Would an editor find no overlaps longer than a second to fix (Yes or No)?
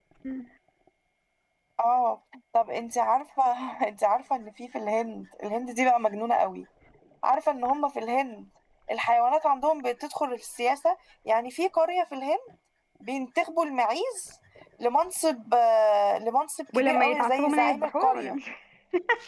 No